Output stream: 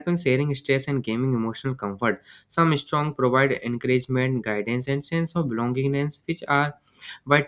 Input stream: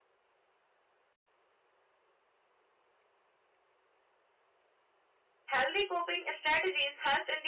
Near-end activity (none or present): present